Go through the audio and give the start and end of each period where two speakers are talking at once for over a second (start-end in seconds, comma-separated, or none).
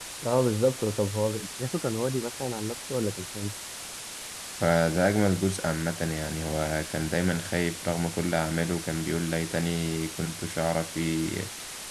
none